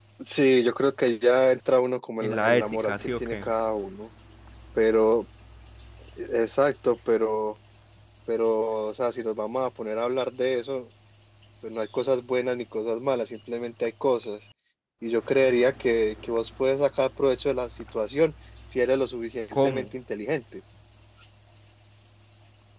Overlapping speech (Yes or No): Yes